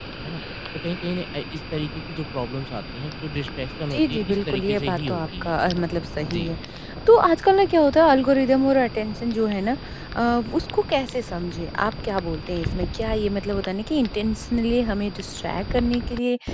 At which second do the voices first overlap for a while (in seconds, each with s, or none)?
3.9 s